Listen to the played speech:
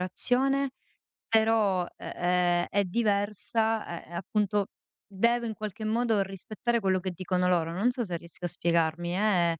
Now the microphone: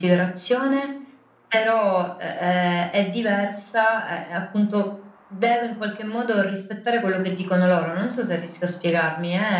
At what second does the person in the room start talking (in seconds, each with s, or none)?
none